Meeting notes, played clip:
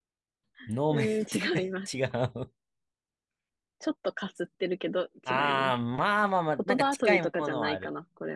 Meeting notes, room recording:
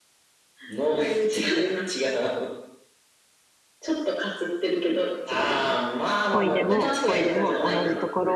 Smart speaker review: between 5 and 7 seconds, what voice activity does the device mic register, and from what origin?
both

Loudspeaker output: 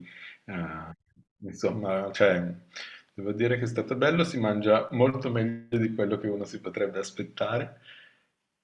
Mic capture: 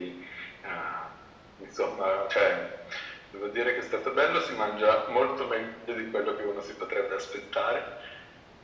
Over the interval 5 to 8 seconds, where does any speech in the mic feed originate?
echo only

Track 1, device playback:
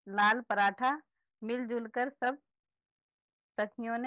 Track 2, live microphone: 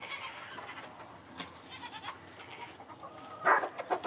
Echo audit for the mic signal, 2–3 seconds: neither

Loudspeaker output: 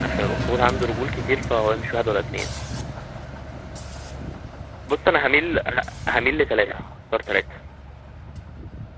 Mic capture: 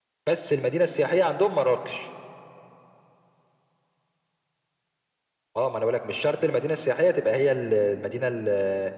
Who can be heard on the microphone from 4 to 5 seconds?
neither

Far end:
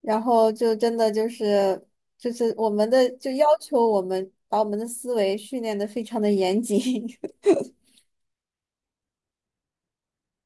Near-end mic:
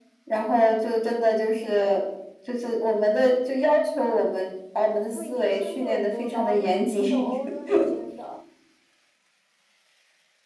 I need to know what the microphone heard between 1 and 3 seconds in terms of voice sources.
echo only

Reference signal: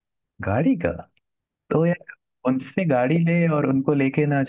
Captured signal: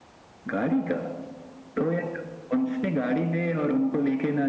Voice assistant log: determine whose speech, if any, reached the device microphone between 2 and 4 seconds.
echo only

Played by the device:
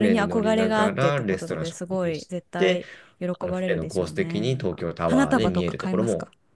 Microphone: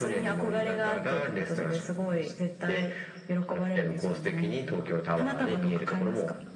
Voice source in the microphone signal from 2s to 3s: echo only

